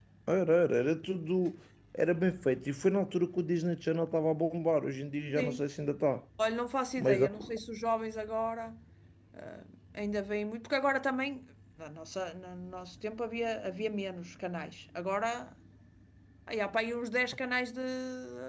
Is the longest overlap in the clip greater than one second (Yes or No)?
No